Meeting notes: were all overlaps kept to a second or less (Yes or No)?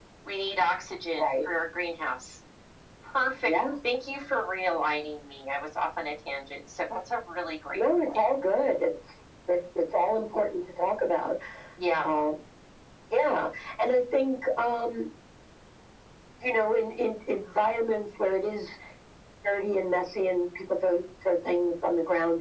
Yes